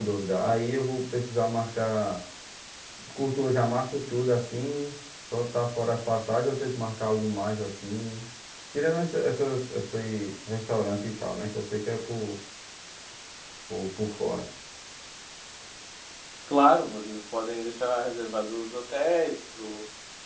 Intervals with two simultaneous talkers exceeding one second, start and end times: none

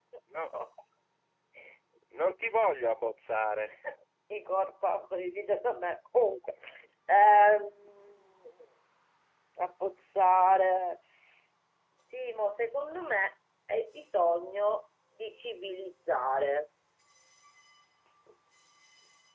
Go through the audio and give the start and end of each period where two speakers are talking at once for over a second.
none

